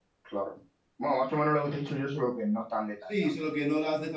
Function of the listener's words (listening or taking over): taking over